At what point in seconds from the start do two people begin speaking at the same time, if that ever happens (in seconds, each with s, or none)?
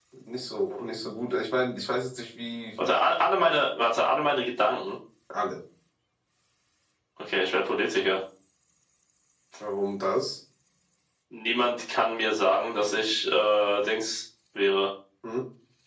none